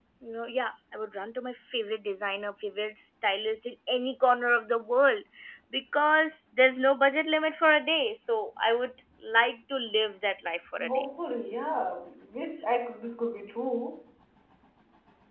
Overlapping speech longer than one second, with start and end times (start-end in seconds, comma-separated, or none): none